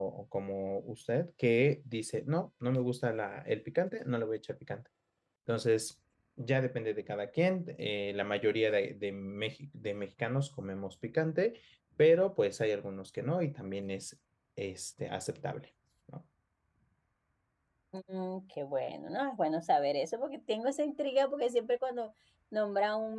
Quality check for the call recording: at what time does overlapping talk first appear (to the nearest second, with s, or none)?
none